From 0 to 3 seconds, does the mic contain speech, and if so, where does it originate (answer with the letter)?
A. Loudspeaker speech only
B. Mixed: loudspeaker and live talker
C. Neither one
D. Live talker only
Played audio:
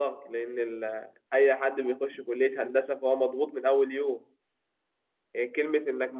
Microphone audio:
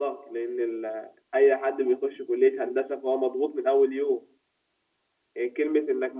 A